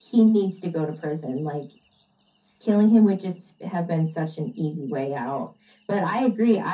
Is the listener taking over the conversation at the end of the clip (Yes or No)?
No